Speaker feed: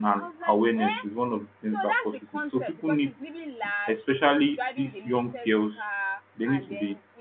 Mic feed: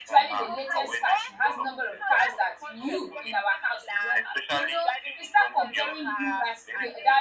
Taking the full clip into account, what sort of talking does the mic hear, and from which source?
both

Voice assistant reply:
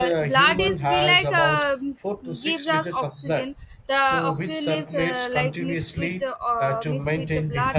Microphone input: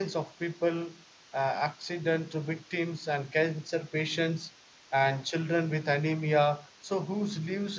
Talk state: user only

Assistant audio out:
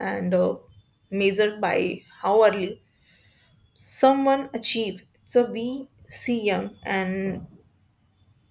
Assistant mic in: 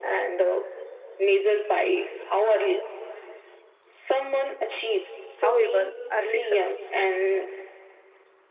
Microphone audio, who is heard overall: both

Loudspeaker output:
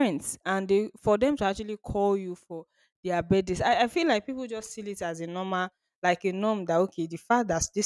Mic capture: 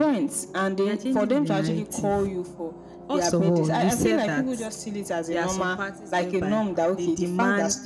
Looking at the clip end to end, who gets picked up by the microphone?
both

